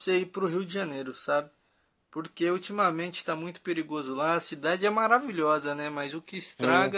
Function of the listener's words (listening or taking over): listening